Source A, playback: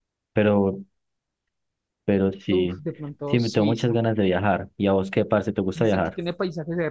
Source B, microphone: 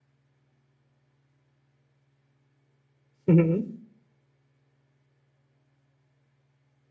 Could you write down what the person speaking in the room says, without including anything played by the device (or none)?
Ujú.